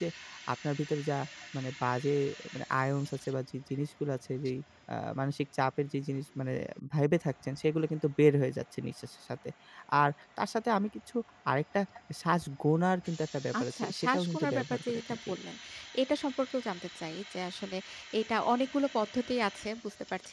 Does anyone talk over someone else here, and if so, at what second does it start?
14 s

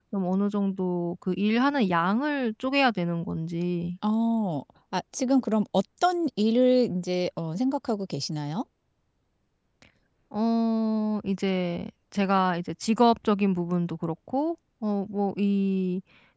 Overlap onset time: none

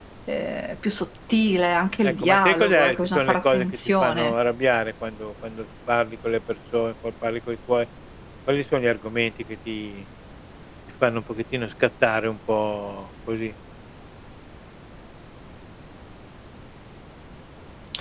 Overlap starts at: 2 s

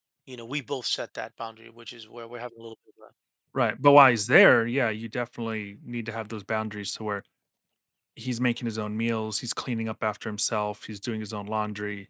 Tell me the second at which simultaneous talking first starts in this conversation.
none

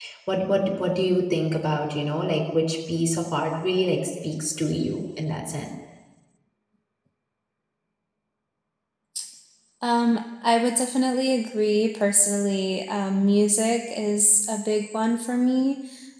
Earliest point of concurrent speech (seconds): none

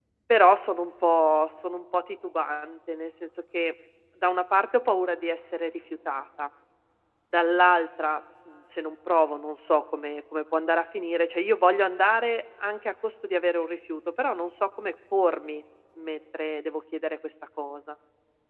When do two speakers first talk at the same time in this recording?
none

